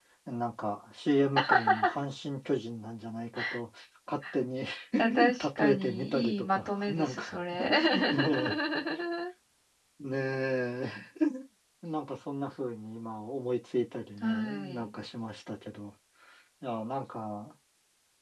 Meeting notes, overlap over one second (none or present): present